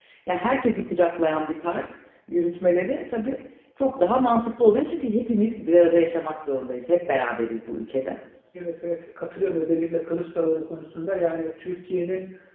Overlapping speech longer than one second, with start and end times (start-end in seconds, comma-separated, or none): none